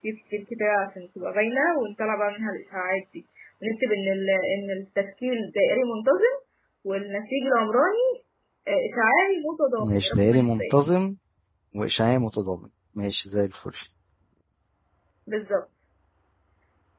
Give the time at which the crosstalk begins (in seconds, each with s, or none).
9.8 s